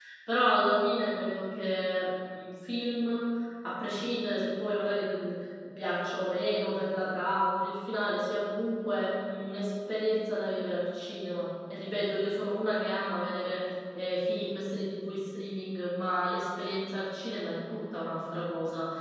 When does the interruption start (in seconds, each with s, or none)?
none